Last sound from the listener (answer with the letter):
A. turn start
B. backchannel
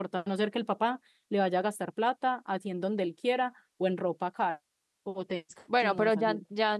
A